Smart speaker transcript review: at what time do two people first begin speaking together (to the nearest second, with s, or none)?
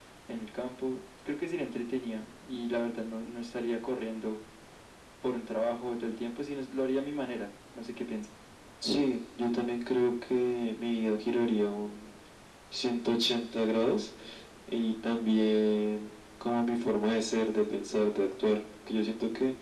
none